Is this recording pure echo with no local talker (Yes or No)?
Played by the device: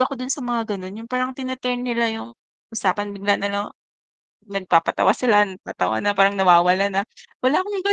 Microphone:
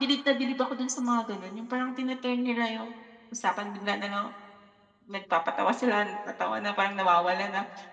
Yes